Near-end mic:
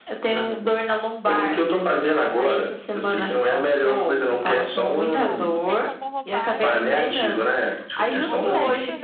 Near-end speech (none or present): present